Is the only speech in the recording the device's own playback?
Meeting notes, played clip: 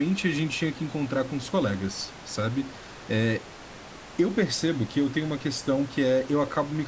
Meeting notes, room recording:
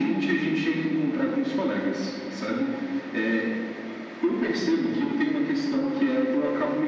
Yes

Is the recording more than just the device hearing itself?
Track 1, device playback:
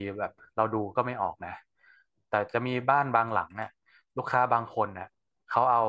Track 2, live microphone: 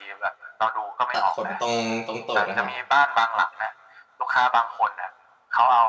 Yes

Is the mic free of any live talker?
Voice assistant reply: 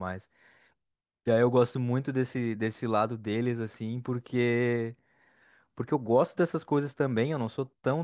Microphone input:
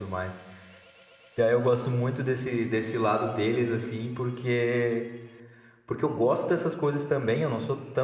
Yes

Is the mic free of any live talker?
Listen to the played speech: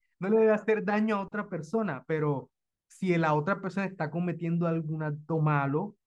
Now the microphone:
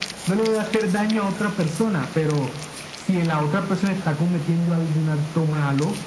Yes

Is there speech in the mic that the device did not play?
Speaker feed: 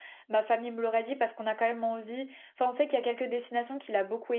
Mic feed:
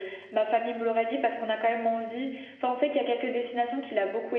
No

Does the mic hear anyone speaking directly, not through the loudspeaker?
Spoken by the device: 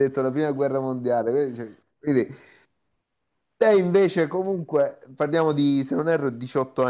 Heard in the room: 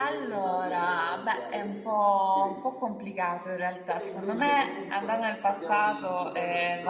Yes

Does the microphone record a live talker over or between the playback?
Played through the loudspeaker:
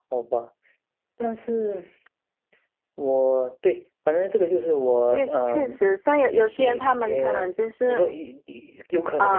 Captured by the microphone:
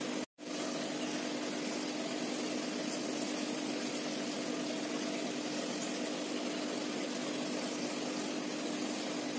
No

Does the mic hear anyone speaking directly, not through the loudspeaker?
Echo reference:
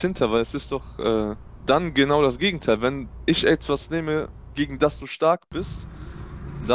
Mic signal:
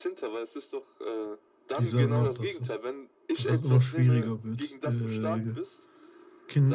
Yes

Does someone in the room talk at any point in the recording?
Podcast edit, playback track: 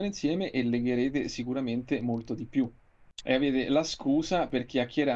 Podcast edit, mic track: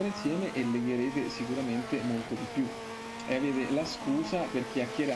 No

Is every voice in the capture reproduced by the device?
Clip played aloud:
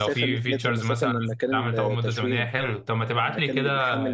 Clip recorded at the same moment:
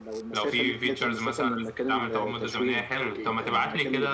No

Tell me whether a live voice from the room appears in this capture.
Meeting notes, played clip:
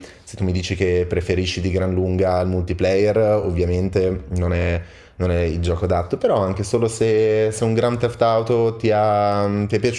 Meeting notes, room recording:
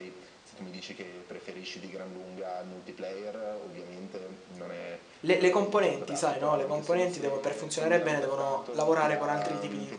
Yes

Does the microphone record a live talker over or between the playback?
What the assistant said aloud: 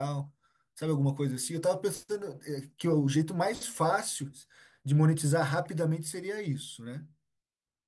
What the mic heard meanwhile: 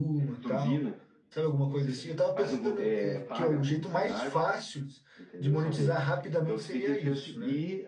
Yes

